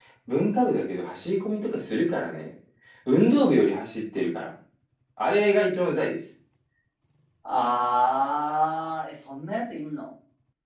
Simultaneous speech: No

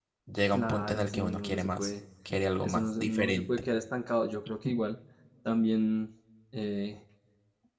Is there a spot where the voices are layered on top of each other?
Yes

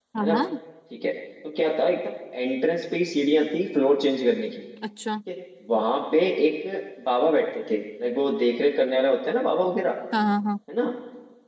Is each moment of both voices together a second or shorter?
Yes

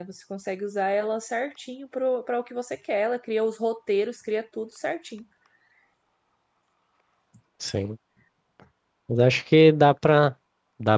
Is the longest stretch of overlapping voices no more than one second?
Yes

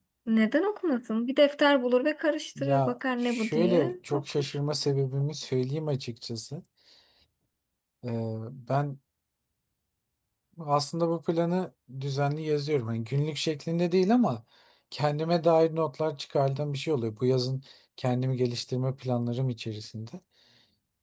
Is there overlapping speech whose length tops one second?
Yes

